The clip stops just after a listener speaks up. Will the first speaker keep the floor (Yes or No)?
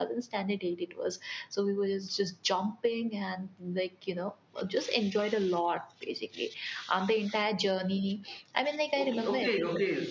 No